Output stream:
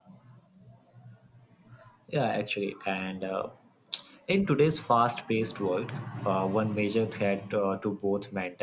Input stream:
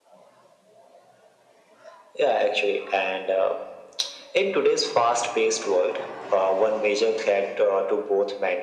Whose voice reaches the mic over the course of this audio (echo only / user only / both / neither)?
echo only